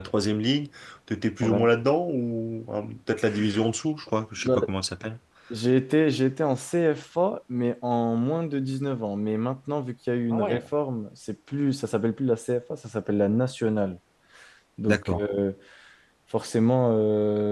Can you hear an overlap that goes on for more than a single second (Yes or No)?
No